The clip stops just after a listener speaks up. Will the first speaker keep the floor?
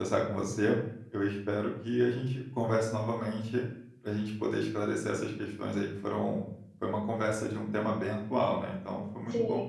No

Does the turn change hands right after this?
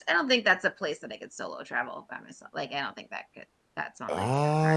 Yes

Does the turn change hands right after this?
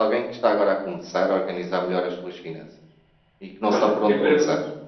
Yes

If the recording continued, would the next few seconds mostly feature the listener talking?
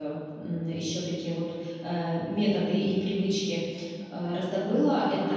No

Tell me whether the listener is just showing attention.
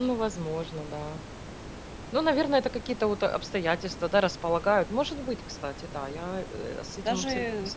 No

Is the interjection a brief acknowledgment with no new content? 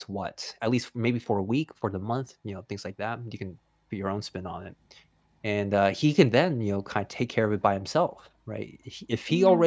Yes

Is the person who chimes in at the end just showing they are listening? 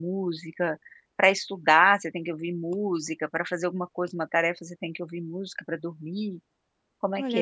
No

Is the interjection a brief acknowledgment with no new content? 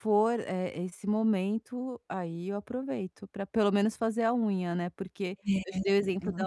Yes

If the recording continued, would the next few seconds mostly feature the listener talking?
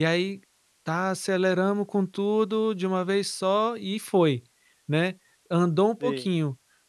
No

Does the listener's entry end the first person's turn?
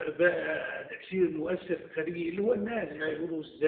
No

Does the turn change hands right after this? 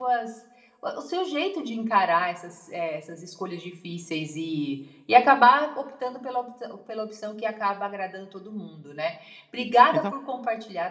No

